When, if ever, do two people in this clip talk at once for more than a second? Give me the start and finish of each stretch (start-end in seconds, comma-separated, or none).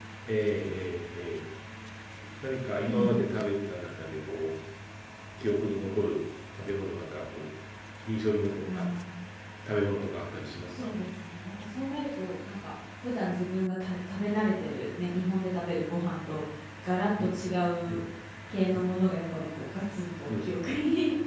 none